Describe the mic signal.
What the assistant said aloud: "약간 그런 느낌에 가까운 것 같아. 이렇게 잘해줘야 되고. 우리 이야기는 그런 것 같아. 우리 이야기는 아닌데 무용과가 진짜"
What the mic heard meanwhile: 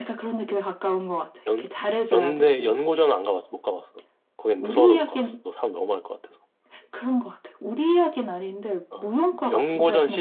both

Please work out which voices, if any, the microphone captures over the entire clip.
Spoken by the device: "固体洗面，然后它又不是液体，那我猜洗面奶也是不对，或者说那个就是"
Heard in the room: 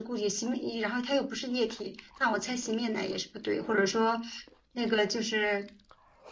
echo only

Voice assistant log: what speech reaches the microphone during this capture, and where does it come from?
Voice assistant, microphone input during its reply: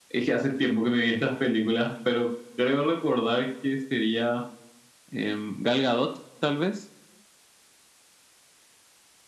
echo only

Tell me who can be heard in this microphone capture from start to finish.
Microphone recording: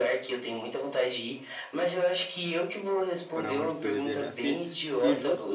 both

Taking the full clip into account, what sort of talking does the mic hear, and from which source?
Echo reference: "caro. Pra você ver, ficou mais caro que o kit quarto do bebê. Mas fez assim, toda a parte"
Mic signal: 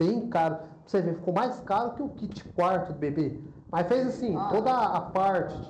both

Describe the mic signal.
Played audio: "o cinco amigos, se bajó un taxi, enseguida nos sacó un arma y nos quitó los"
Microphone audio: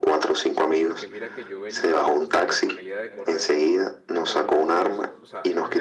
both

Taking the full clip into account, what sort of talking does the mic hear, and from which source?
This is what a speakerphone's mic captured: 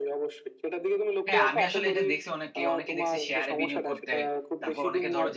both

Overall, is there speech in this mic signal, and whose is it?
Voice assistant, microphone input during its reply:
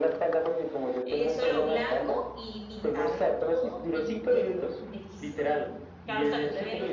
both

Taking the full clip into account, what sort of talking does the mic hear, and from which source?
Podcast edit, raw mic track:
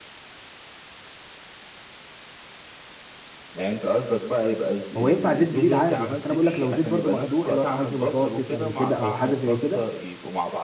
both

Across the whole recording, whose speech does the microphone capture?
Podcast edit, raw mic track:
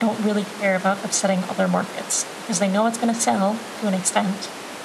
echo only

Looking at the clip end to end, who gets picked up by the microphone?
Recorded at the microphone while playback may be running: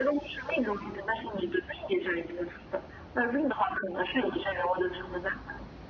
echo only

